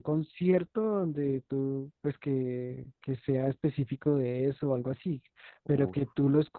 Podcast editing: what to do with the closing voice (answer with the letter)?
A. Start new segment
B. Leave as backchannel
B